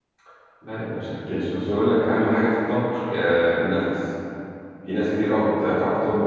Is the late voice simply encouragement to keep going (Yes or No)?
Yes